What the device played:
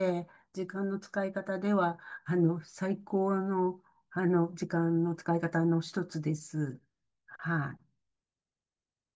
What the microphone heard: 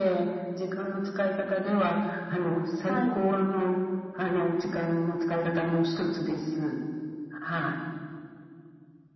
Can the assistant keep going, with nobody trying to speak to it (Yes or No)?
No